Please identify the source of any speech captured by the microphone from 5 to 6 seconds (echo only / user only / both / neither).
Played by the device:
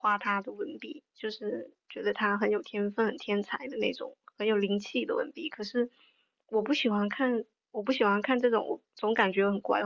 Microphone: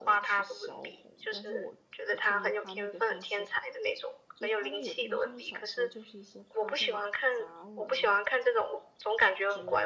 both